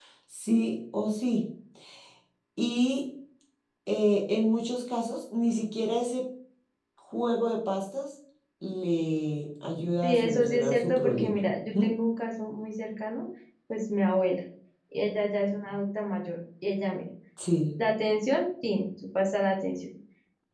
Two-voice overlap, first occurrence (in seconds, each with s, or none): 10.0 s